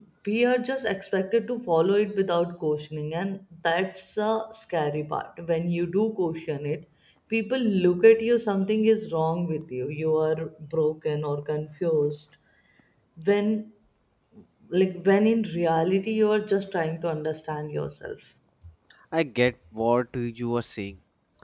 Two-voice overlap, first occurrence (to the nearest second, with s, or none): none